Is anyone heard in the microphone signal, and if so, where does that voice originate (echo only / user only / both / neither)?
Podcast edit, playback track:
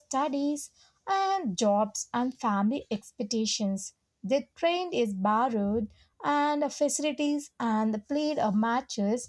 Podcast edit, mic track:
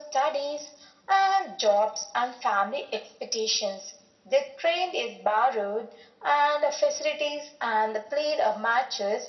echo only